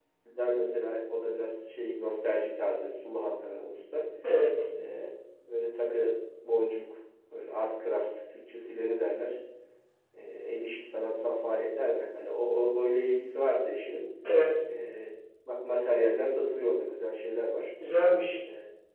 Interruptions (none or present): none